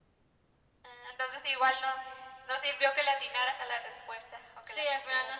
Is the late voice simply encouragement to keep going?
No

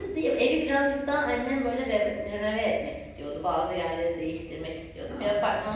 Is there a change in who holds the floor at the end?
No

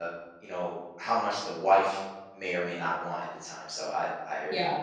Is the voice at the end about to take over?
Yes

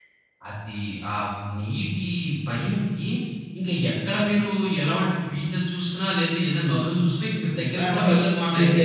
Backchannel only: No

